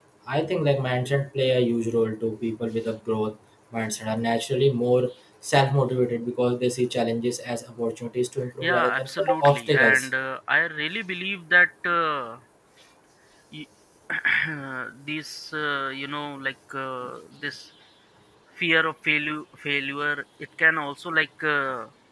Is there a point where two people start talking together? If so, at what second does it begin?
8.6 s

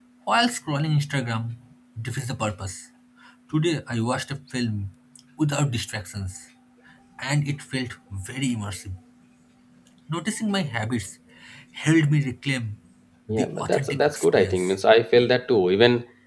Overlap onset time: 13.3 s

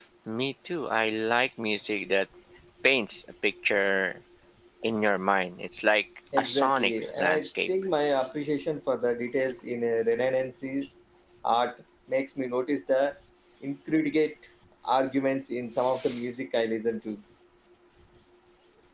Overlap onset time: 6.4 s

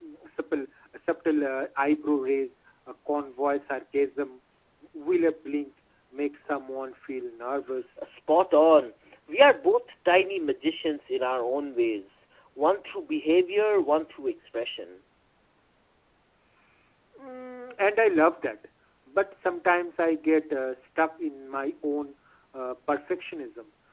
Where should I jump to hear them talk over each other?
none

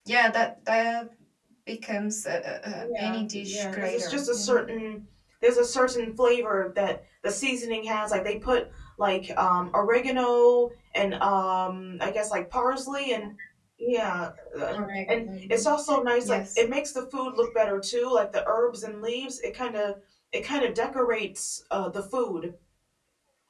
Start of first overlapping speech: 2.8 s

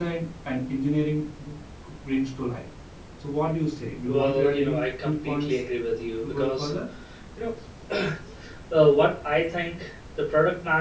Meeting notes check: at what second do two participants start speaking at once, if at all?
4.1 s

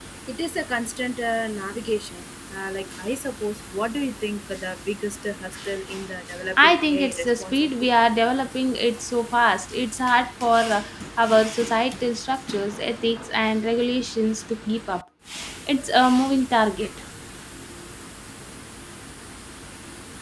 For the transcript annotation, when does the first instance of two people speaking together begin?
6.6 s

